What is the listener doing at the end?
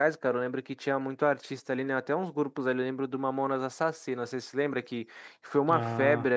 listening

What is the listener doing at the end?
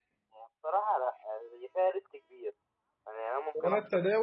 taking over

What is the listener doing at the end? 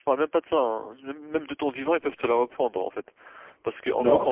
listening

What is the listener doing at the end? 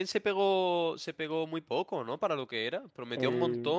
listening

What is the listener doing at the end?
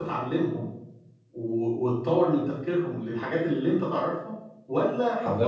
listening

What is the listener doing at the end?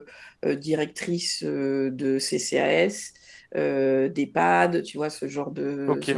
listening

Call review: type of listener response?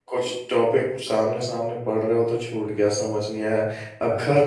listening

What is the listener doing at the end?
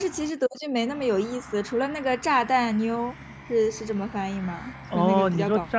taking over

